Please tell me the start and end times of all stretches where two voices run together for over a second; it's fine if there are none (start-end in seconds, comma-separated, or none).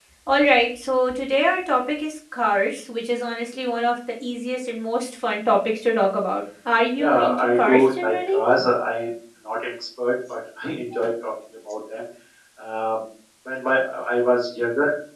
7.0-8.4